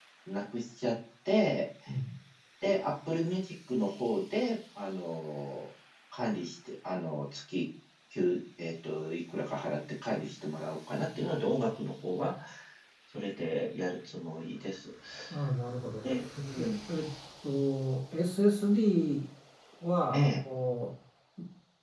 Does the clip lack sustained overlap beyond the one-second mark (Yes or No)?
Yes